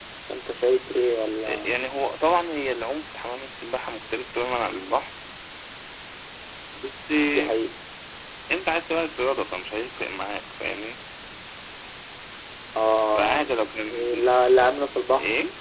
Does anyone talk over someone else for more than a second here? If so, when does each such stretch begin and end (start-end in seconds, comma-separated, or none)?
none